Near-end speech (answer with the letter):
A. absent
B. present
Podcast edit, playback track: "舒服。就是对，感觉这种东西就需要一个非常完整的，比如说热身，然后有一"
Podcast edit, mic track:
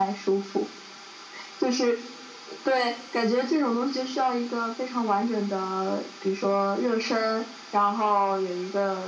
A